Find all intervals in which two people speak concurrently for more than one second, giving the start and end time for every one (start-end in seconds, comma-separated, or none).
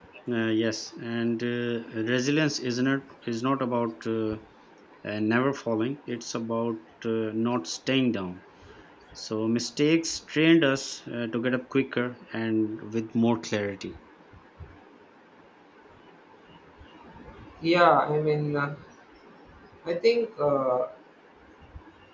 none